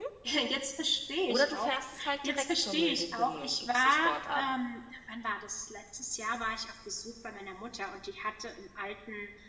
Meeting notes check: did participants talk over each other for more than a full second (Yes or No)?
Yes